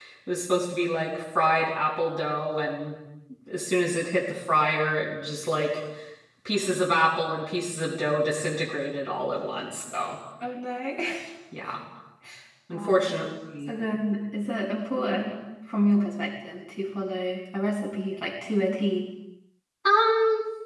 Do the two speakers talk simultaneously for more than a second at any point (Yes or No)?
No